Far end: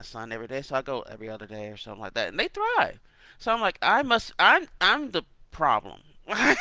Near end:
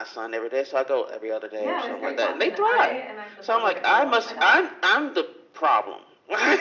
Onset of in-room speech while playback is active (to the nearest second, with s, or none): 2 s